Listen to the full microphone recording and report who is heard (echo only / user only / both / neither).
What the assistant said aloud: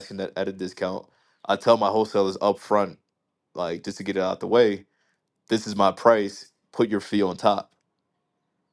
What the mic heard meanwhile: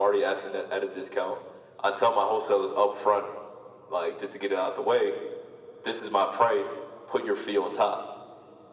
echo only